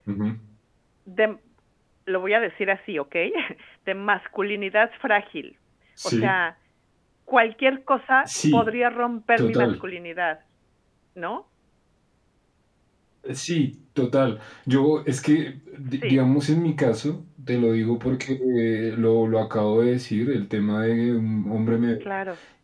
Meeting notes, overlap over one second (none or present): none